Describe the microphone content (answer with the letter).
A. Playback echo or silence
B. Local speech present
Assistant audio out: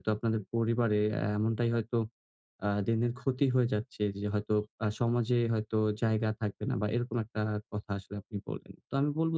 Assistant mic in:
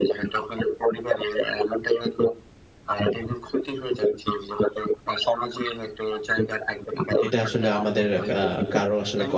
B